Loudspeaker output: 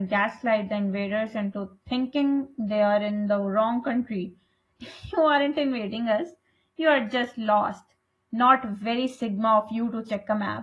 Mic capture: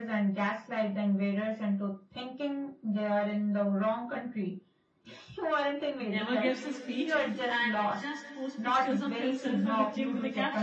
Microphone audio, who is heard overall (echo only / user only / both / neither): both